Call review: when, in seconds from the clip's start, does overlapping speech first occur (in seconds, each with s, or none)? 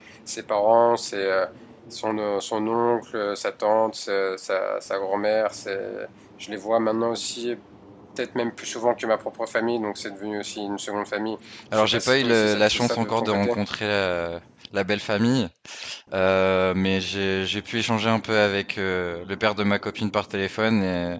11.5 s